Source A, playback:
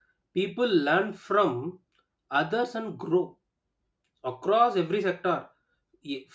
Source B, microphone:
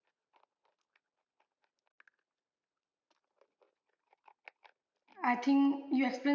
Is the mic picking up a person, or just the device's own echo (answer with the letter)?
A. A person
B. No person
A